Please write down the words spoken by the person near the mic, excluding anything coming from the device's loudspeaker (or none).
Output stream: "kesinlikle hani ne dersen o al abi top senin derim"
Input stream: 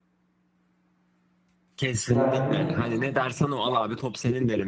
Ya şimdi